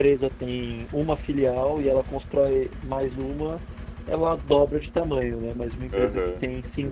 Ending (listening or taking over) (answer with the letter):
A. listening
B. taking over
A